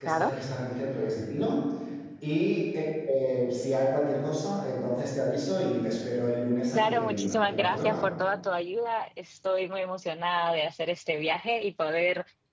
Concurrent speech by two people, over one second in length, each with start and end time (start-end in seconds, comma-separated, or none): 6.8-8.0